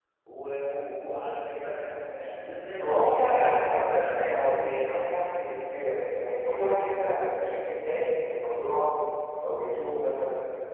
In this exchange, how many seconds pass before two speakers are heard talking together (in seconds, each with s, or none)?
2.8 s